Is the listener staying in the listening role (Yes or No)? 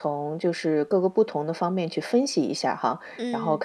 Yes